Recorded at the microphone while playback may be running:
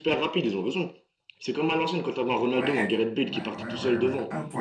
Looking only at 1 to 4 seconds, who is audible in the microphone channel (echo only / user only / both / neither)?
both